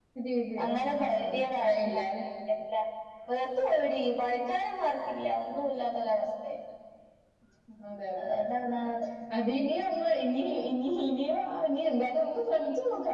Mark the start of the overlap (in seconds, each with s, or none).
0.6 s